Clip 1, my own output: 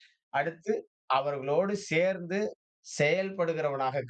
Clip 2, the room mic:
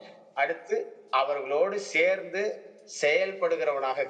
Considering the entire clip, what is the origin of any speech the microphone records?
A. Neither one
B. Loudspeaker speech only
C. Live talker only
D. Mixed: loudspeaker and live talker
B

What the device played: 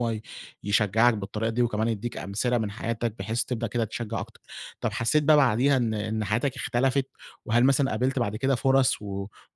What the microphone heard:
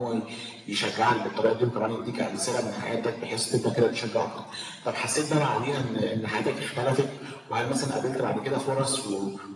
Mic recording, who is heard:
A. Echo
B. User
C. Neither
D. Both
A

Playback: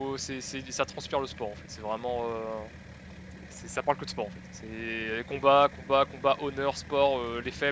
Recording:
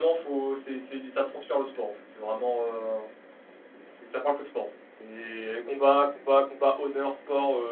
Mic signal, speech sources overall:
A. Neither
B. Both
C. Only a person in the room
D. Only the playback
D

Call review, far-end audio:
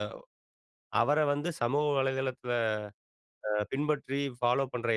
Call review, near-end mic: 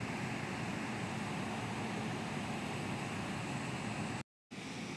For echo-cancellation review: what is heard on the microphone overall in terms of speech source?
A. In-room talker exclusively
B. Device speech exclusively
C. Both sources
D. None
D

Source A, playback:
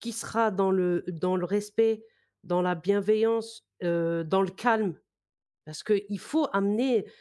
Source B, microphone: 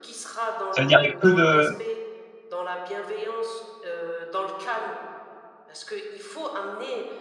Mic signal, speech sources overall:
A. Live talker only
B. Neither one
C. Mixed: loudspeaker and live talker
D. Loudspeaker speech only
C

